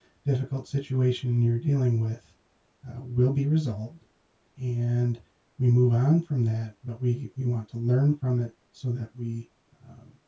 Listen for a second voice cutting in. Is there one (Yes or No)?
No